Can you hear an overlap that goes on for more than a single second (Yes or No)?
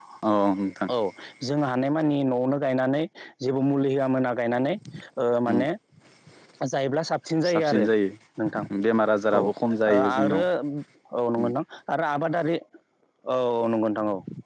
No